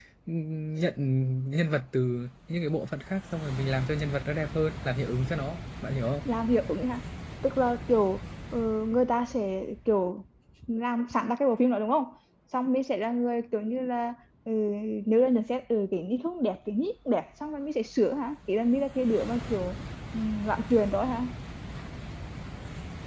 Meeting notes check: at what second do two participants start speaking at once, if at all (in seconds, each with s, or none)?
none